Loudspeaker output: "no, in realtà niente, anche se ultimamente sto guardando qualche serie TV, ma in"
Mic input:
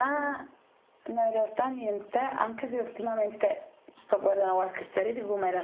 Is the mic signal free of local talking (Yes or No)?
Yes